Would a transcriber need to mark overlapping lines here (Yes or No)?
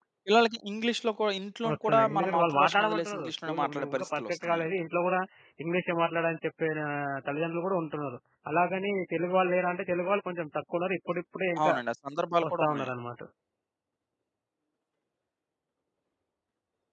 Yes